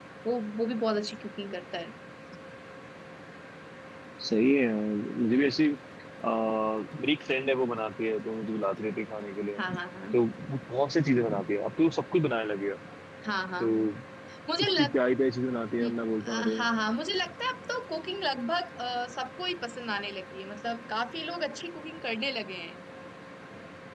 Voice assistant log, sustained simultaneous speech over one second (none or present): none